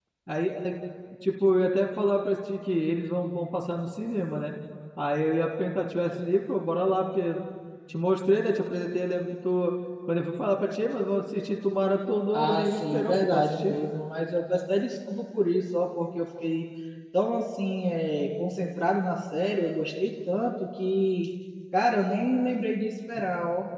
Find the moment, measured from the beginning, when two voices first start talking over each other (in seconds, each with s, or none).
12.3 s